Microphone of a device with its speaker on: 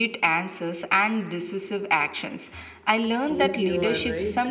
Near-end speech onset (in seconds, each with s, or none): 3.4 s